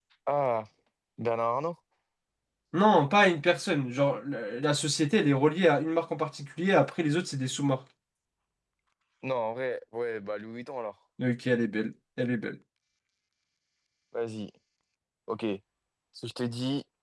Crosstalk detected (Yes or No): No